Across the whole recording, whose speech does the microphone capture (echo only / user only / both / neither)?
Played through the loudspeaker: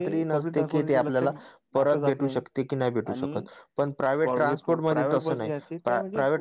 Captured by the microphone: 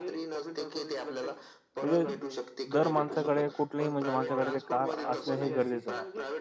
both